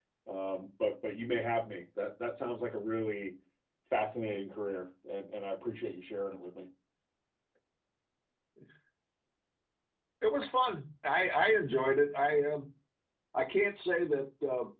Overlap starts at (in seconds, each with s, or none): none